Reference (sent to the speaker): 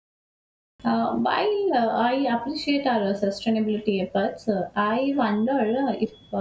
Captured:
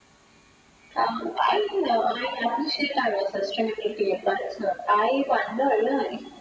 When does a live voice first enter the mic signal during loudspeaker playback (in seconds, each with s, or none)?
none